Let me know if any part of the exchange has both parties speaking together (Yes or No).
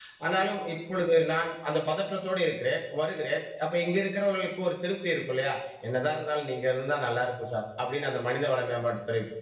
No